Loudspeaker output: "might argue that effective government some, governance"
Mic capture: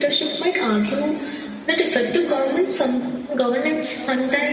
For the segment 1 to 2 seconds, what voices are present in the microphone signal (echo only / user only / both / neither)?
echo only